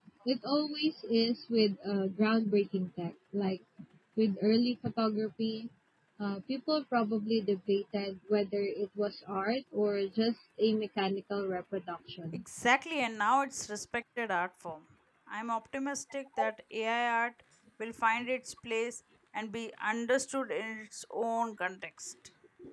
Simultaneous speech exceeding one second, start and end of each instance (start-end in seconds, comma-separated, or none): none